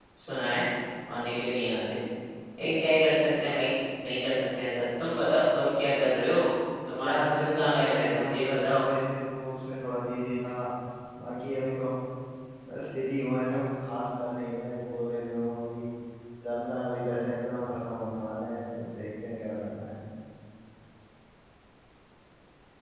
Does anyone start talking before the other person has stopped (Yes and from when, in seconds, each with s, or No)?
Yes, from 6.9 s